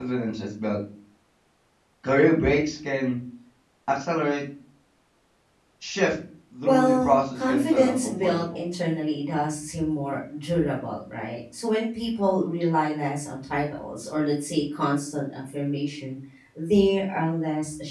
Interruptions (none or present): present